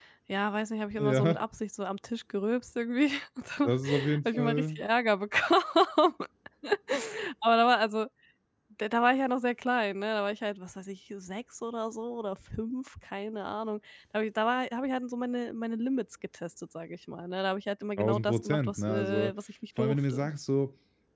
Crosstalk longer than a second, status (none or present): present